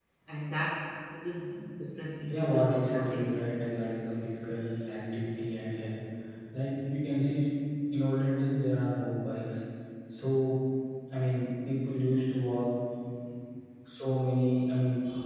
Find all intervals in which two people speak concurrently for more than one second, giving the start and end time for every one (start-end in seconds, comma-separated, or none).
2.3-3.6